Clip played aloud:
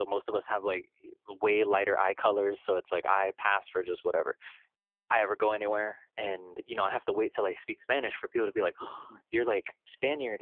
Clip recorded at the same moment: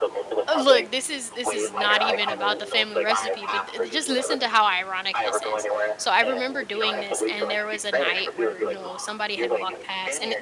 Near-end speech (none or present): present